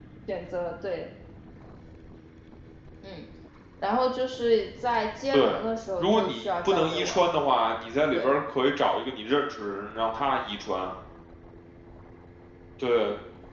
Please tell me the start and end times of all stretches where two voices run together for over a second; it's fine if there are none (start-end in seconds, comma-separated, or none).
6.0-7.3